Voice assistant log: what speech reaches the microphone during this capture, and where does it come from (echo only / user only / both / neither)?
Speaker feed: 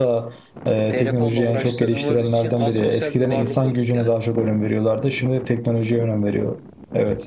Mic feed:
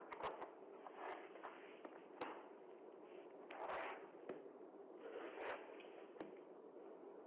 neither